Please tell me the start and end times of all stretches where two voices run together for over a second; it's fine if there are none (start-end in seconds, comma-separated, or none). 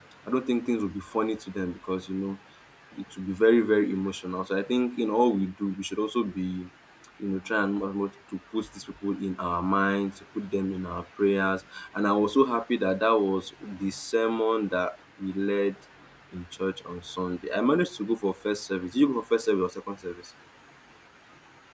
none